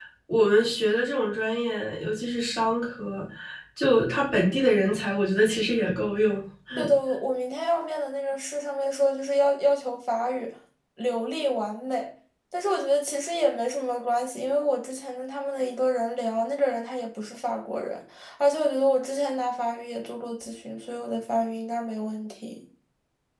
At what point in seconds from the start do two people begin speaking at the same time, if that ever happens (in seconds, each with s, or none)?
none